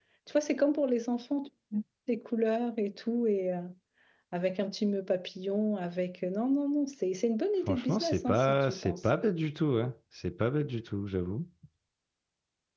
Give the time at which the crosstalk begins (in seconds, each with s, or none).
7.6 s